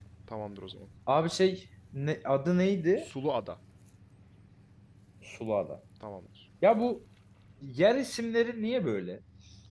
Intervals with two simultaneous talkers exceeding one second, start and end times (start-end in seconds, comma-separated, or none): none